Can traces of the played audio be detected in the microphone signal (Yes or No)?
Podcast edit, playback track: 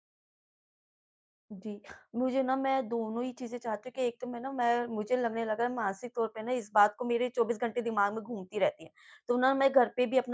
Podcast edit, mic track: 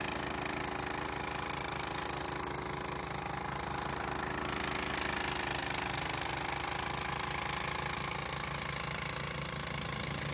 No